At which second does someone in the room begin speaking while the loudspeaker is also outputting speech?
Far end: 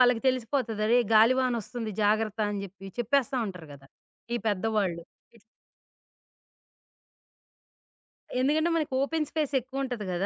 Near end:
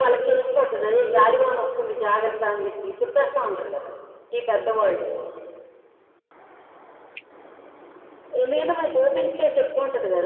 none

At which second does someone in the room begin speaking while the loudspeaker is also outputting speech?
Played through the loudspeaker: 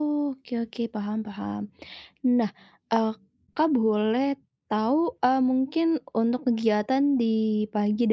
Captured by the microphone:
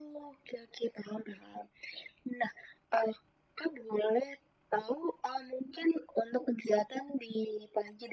none

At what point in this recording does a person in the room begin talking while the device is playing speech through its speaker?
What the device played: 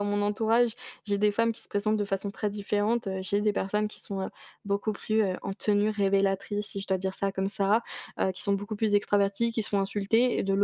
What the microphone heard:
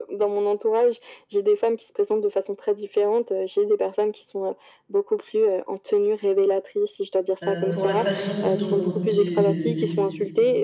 7.4 s

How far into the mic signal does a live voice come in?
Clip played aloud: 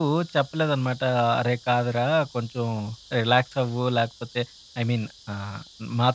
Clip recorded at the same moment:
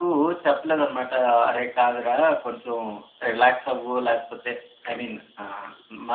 none

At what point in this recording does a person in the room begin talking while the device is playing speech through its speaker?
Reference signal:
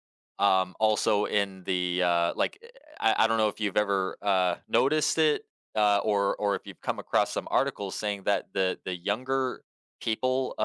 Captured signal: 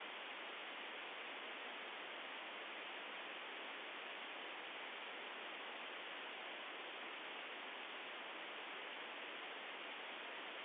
none

